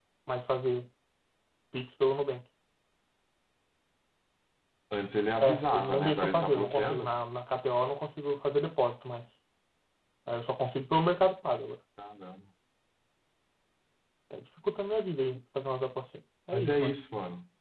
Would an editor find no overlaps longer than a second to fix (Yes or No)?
No